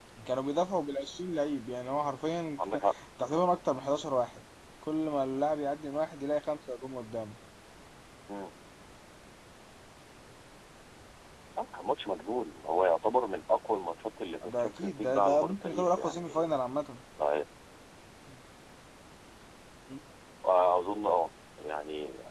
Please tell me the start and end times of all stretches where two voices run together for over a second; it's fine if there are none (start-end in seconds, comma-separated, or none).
14.4-16.6